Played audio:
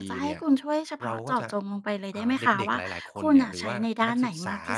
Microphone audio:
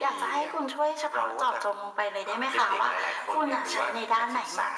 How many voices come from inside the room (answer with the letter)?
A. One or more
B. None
B